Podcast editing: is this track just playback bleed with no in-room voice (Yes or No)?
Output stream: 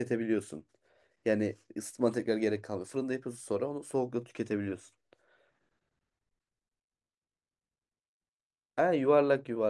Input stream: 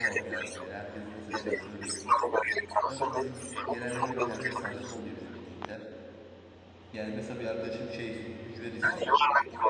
No